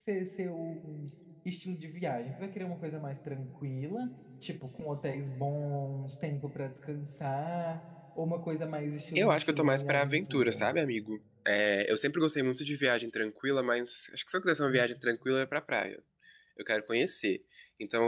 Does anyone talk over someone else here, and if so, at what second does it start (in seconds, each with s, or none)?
9.2 s